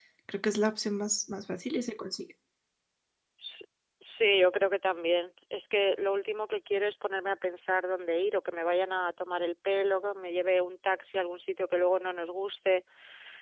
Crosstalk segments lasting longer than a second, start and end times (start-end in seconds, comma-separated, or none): none